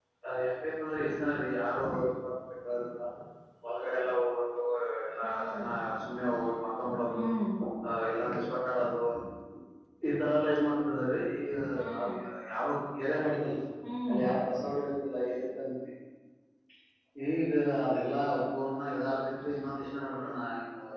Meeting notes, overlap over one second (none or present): none